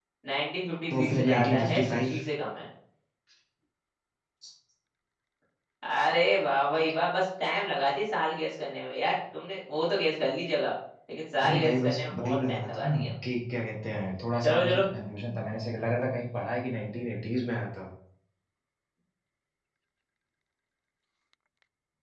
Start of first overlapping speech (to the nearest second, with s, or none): 1 s